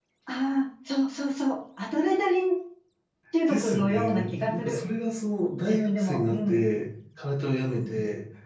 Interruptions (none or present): present